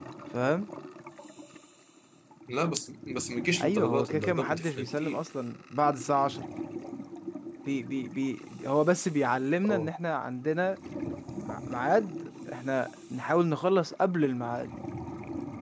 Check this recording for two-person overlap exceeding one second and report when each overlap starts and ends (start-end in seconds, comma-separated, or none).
3.6-5.2